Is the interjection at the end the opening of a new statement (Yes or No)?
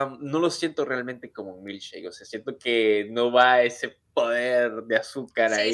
Yes